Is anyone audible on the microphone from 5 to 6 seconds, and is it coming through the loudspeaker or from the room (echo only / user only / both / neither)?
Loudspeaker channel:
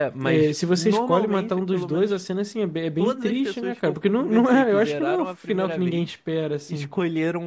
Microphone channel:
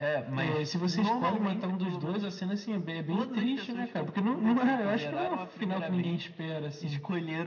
echo only